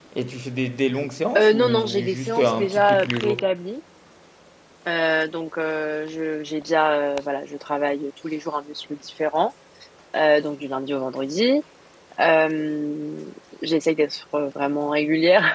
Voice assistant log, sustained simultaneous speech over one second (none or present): present